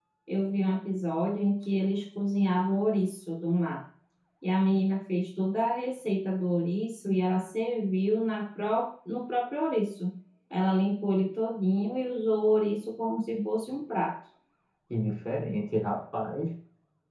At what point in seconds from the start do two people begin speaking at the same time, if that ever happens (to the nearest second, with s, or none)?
none